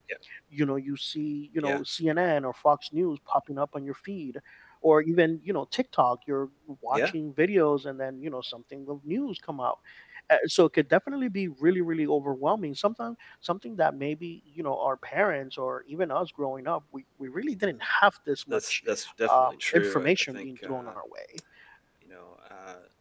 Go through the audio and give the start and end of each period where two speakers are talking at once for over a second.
19.3-20.7

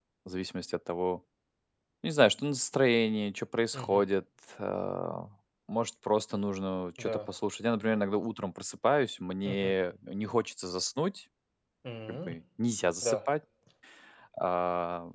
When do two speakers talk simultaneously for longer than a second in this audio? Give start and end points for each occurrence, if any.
none

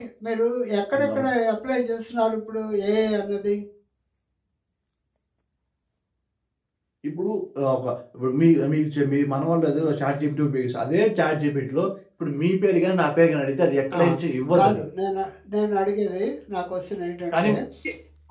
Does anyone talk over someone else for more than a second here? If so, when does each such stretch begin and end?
none

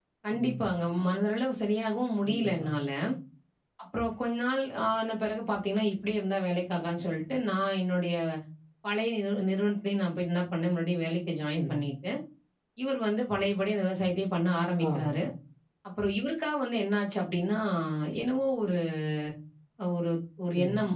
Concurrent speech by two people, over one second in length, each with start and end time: none

